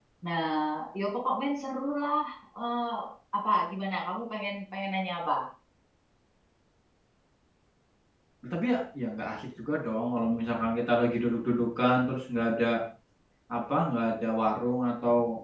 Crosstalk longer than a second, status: none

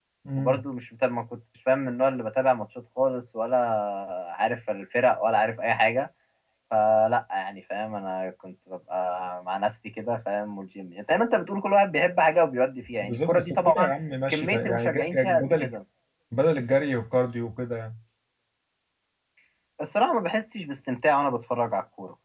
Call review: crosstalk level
present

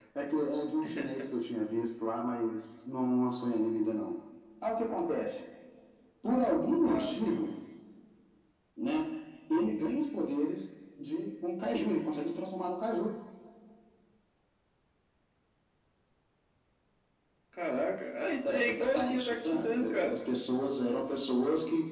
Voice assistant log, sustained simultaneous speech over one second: present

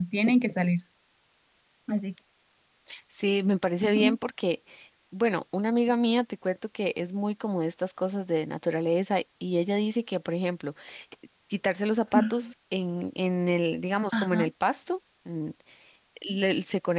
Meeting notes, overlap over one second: none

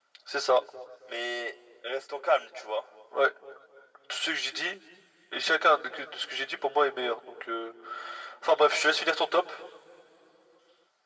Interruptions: none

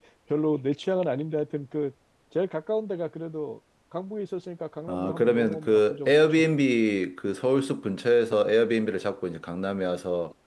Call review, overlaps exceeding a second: present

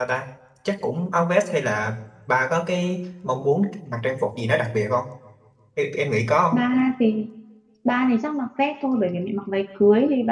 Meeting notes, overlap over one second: none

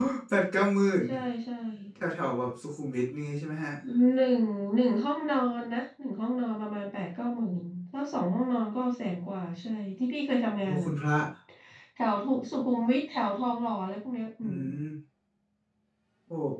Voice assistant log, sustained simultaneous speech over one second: none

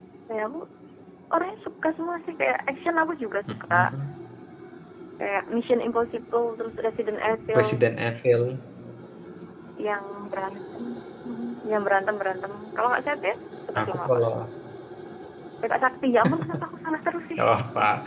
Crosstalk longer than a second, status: none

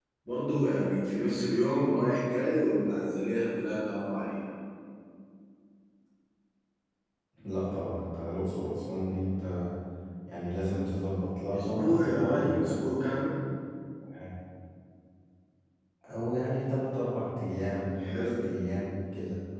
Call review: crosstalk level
present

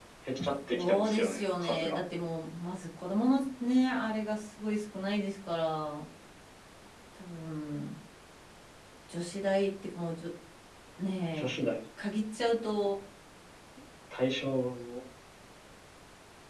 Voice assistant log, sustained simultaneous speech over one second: present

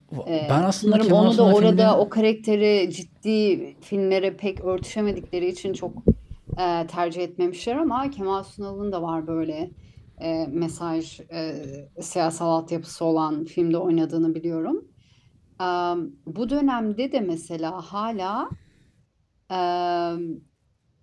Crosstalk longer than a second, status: present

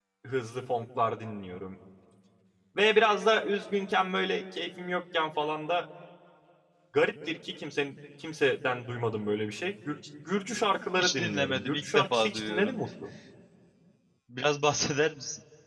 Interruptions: present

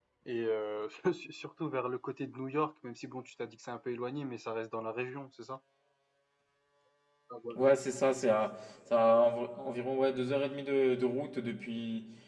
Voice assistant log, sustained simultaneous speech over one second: none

